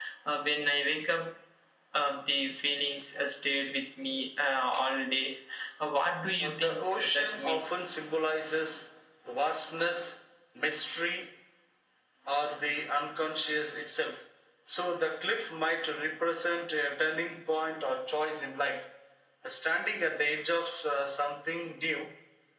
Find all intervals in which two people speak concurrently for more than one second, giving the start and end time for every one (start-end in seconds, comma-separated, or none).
6.4-7.6